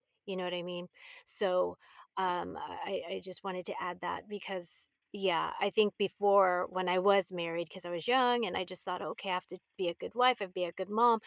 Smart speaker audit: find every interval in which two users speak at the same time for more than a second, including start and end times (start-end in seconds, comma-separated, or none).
none